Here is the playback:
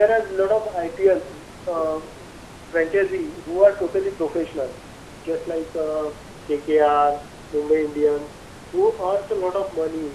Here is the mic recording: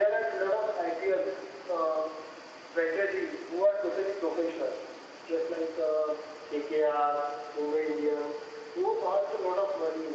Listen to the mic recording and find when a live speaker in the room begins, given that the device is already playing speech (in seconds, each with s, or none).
none